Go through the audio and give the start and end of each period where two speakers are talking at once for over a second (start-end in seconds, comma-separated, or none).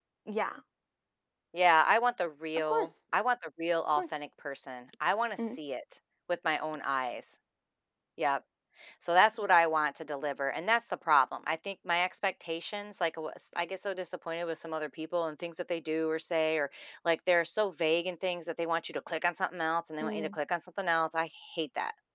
none